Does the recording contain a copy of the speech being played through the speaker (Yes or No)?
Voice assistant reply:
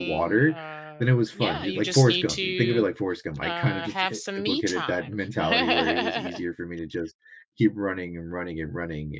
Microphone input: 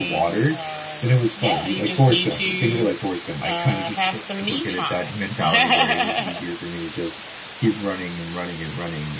Yes